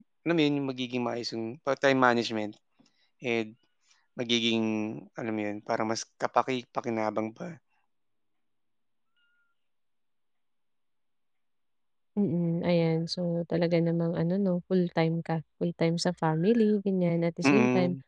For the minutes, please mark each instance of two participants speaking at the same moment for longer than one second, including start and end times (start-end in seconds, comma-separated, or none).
none